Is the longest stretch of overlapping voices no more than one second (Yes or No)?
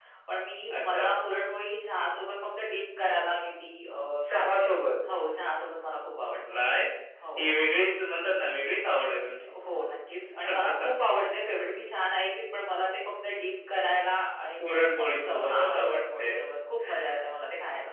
No